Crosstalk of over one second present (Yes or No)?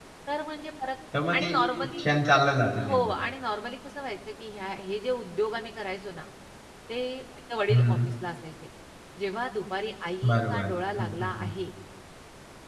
Yes